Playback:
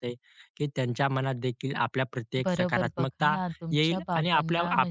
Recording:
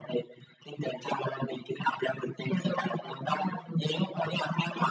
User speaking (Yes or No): No